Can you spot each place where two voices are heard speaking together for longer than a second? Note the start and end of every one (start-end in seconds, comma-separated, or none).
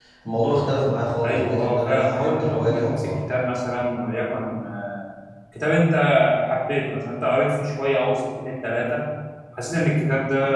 1.2-3.1